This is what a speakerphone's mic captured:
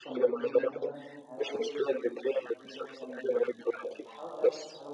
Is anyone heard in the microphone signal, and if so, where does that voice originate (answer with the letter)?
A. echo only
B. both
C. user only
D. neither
B